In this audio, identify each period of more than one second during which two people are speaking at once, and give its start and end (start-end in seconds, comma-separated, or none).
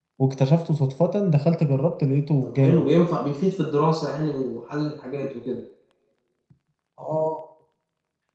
none